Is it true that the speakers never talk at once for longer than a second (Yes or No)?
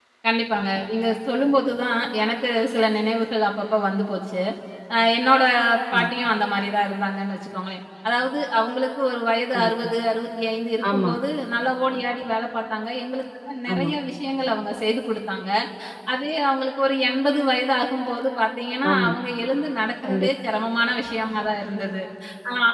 Yes